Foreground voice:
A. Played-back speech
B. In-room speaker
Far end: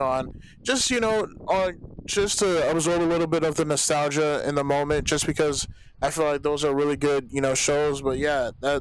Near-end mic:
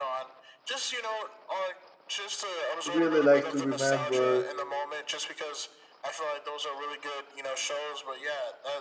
B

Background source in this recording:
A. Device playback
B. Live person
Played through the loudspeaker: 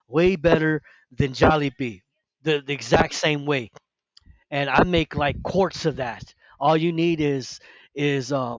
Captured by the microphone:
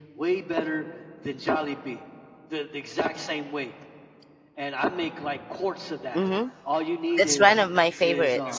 A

